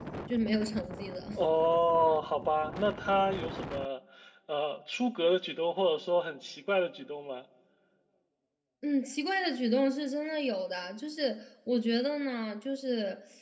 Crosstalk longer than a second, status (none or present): none